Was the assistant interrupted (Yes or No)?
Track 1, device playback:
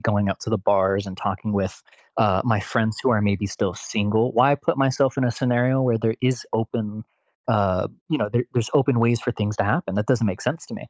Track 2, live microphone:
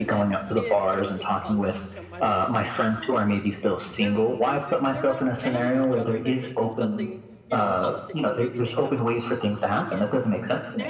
Yes